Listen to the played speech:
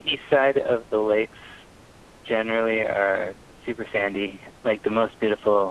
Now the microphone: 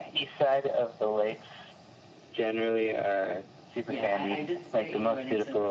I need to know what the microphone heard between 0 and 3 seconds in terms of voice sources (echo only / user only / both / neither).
echo only